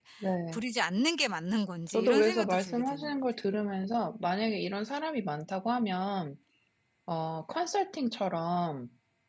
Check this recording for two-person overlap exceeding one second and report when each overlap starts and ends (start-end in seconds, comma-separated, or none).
1.9-3.2